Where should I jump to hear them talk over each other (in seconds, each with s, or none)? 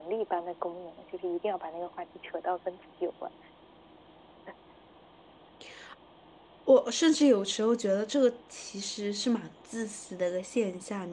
none